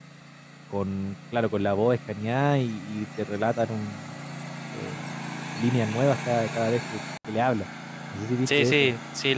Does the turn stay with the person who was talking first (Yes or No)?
No